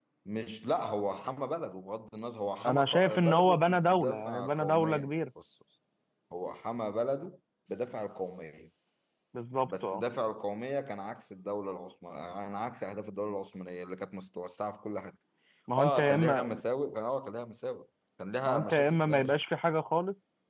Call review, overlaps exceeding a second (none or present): present